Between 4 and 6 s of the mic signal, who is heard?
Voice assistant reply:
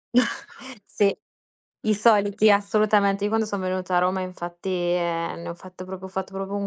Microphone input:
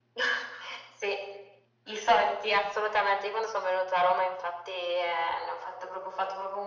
echo only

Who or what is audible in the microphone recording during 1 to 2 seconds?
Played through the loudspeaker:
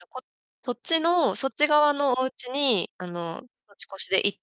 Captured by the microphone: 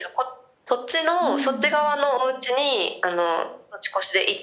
both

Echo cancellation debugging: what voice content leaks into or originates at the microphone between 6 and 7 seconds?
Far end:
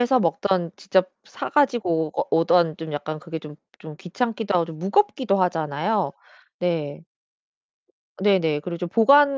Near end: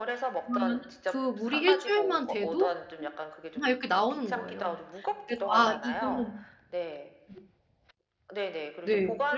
both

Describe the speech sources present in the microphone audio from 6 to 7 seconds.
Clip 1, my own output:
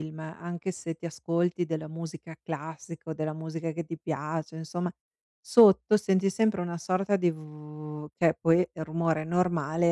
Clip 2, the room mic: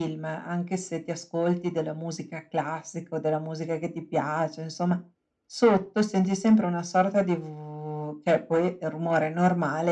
echo only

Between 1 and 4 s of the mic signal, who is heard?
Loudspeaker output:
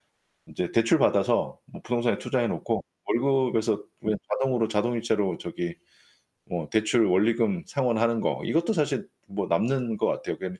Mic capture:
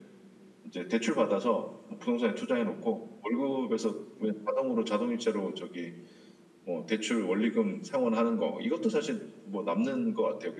echo only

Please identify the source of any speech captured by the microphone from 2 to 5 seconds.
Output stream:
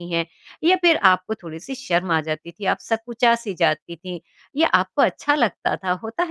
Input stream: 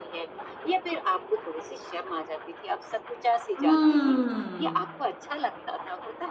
both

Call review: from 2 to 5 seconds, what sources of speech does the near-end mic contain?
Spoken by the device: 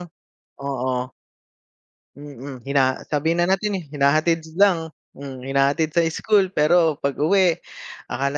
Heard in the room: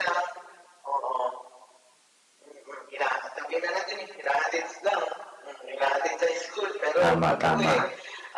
echo only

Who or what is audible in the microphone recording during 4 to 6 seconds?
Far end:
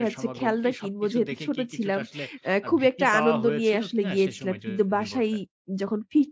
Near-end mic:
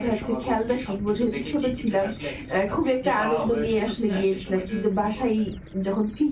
echo only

